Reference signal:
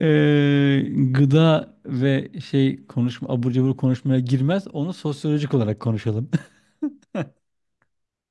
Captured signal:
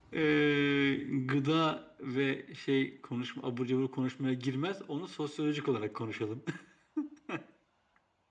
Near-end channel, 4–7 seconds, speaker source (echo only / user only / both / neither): echo only